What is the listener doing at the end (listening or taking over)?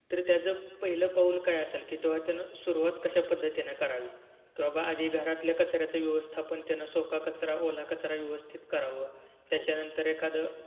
listening